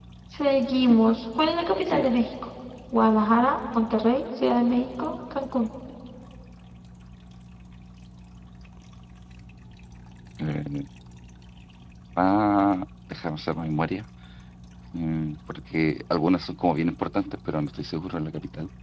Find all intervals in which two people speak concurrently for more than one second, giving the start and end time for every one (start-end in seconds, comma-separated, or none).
none